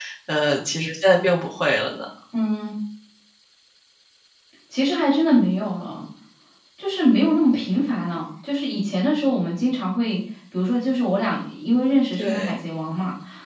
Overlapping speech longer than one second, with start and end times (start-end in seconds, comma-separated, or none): none